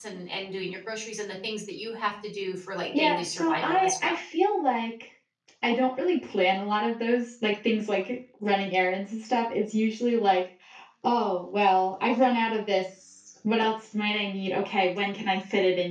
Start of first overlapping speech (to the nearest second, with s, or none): 3 s